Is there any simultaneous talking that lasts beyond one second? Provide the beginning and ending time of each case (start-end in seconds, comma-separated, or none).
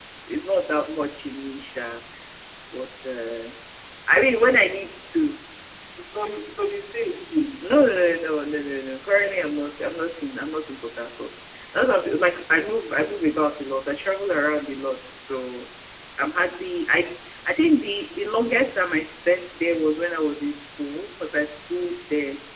none